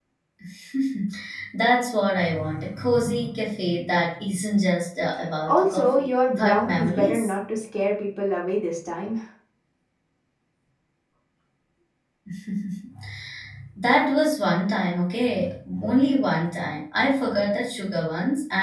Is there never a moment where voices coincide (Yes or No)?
No